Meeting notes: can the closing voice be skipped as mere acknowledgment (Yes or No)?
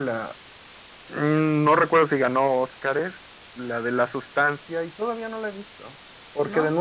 Yes